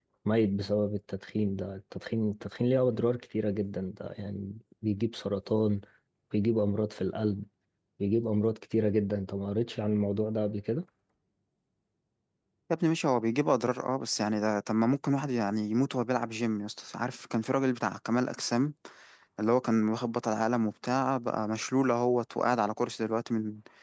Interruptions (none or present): none